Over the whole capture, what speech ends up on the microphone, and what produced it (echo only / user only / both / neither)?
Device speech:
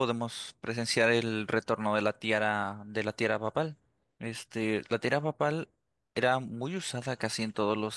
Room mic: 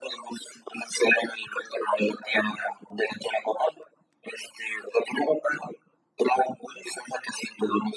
echo only